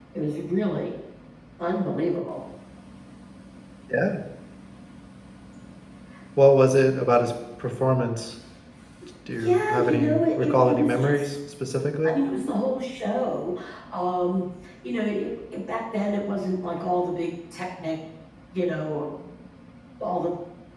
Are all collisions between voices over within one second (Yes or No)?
No